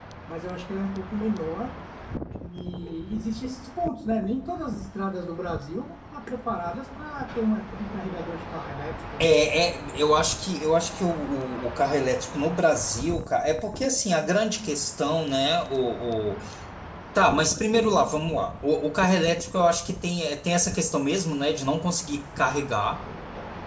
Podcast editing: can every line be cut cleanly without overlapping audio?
Yes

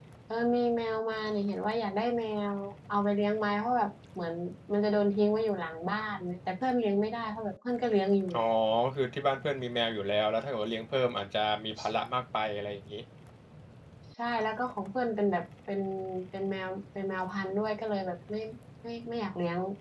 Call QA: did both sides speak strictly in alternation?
Yes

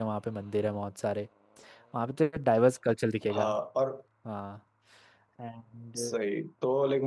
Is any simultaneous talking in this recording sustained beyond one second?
No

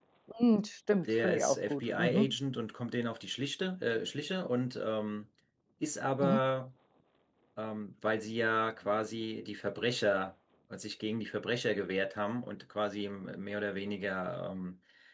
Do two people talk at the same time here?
Yes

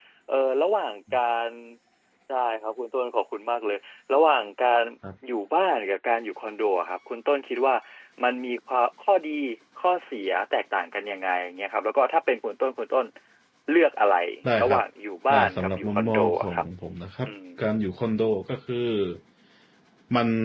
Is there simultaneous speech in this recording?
Yes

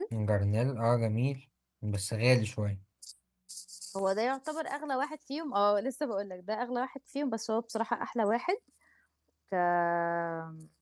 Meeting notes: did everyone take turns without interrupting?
Yes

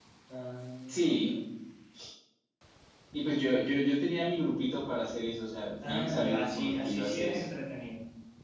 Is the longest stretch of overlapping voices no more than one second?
No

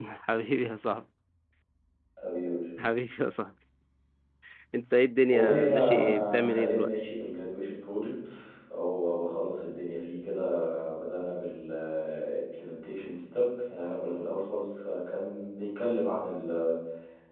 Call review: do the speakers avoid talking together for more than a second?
No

